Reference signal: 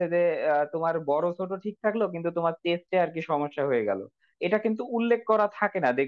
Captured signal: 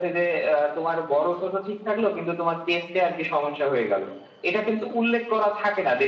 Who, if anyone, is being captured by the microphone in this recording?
echo only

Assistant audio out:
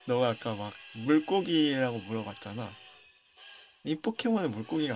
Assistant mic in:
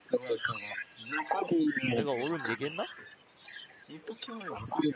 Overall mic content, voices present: both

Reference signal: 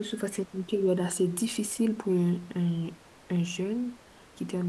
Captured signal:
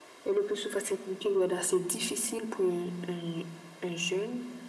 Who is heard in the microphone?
echo only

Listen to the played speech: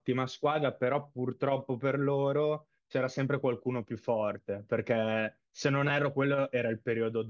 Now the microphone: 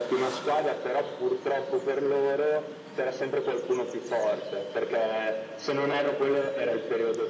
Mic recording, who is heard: echo only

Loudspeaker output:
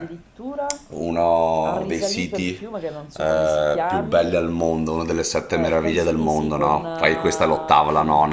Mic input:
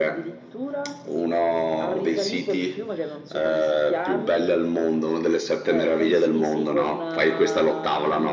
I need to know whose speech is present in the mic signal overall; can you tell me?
echo only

